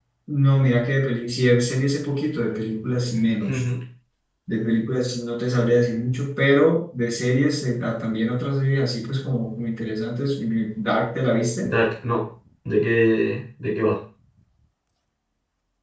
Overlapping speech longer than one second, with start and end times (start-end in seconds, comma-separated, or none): none